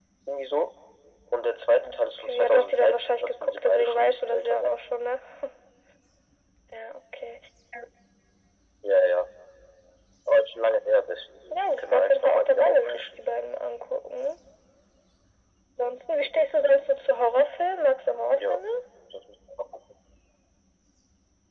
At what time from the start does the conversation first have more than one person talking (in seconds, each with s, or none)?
1.8 s